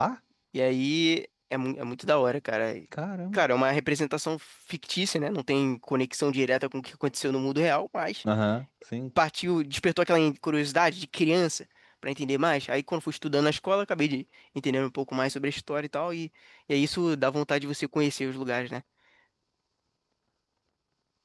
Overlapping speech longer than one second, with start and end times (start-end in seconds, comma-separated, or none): none